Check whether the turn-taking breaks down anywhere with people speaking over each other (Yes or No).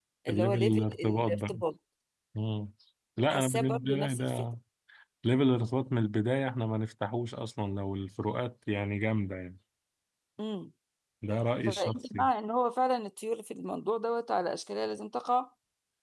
Yes